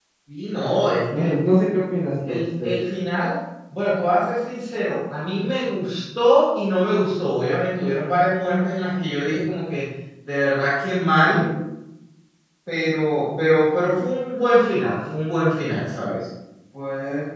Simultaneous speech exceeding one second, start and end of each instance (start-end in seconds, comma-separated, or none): none